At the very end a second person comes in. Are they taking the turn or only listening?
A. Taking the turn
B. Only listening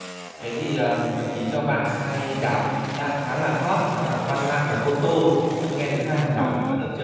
A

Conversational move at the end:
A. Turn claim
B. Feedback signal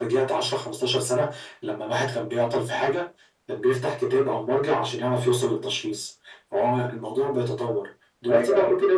B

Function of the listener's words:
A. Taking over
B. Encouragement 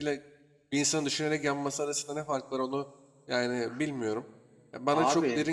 B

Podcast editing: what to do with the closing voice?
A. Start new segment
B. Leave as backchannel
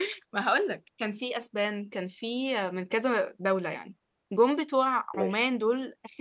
B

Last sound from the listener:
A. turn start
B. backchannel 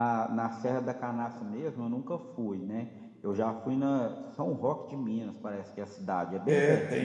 A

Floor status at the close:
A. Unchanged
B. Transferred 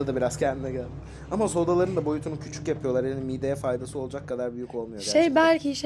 B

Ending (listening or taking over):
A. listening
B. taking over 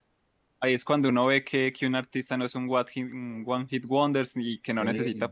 A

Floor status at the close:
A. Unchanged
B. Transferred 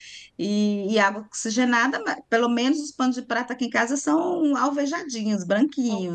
B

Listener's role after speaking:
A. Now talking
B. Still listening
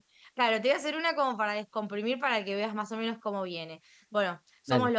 B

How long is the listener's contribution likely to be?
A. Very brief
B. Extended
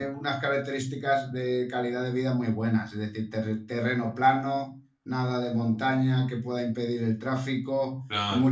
A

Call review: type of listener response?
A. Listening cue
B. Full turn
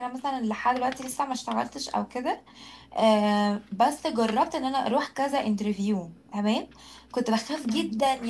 A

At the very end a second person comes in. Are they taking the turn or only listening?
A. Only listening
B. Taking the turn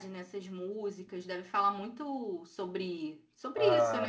B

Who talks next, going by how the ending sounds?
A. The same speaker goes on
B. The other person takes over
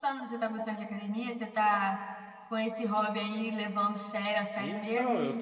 B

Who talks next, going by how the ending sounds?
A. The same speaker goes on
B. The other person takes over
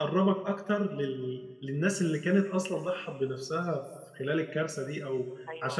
B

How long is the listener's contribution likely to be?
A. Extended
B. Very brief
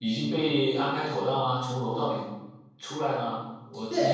A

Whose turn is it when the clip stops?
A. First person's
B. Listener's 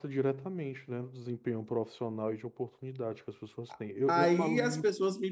B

